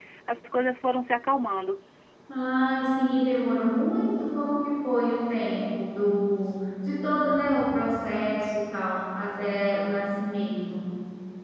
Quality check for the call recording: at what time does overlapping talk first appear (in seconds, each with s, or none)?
none